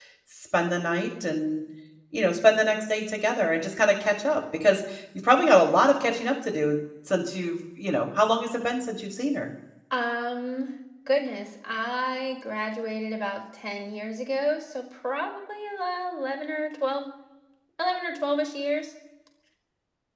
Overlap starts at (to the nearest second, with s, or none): none